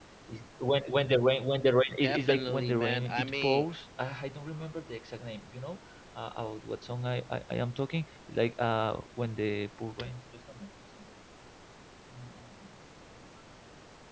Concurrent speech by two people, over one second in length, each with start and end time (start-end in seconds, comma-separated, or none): 2.0-3.6